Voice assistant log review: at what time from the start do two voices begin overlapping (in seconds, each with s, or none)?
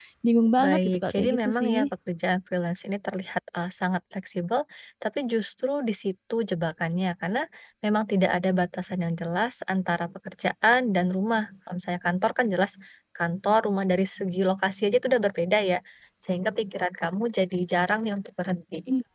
0.6 s